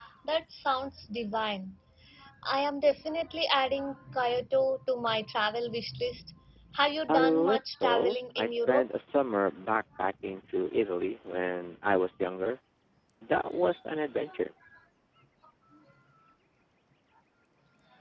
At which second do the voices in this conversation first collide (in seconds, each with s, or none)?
7.1 s